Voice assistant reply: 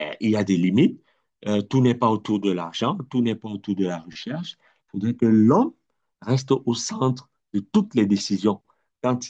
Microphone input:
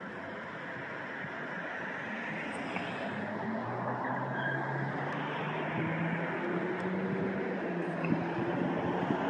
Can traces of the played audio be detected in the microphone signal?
No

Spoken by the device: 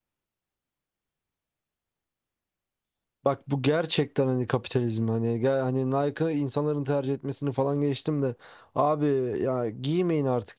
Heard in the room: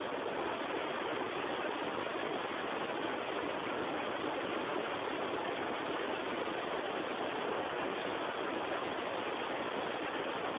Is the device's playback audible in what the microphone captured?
No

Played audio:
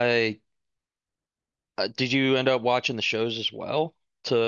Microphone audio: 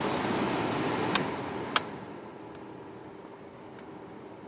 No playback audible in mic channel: Yes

